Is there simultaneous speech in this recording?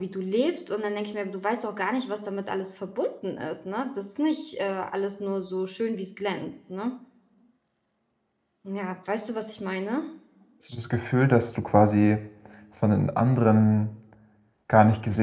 No

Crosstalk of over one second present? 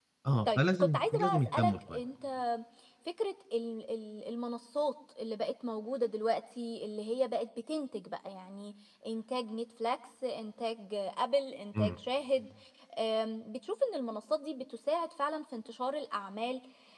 Yes, from 0.6 s

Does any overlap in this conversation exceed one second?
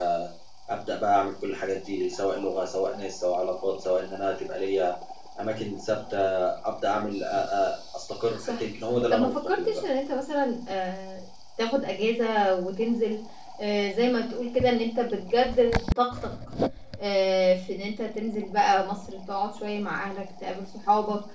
Yes, from 8.4 s

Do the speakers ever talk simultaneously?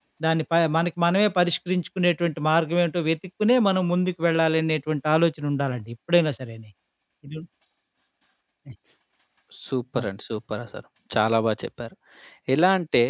No

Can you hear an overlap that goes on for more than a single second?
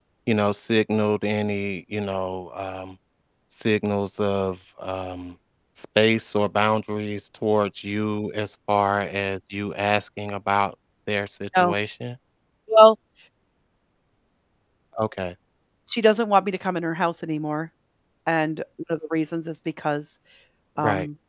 No

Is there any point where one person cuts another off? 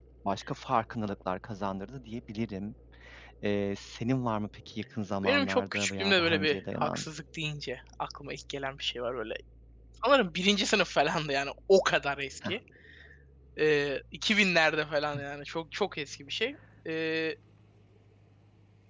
Yes, from 5.2 s

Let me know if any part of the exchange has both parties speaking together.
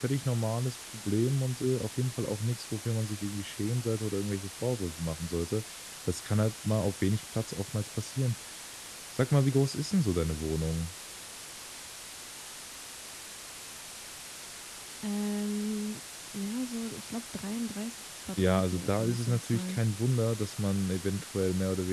Yes, from 18.4 s

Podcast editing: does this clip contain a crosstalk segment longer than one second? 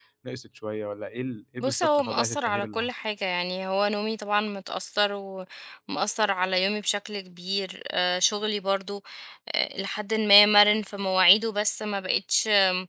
Yes, from 1.6 s

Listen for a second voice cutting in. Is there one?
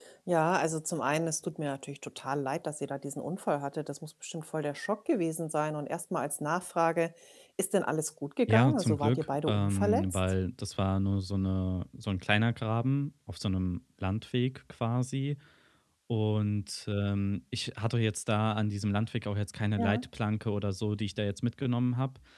Yes, from 8.5 s

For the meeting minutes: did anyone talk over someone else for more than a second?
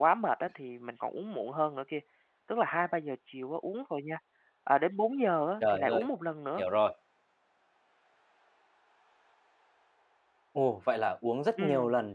No

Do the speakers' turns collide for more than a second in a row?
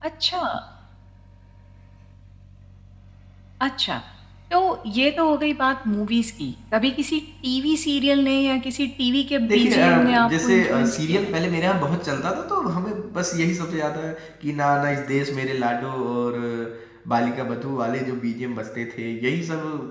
Yes, from 9.4 s

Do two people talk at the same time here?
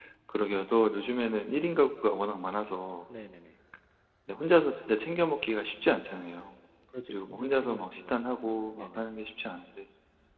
Yes, from 7.1 s

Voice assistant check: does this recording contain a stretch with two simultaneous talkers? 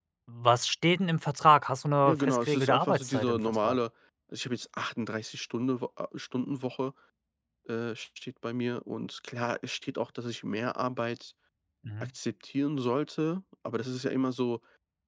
Yes, from 2.0 s

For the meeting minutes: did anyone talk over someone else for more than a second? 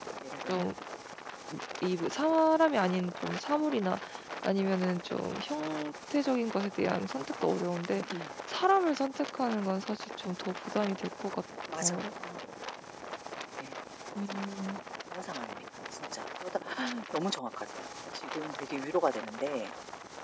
No

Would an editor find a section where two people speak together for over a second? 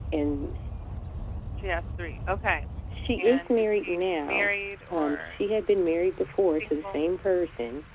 Yes, from 3.2 s

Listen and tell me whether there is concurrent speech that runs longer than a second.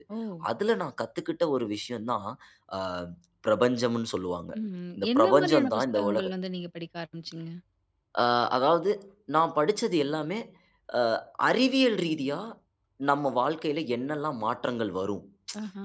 Yes, from 5.0 s

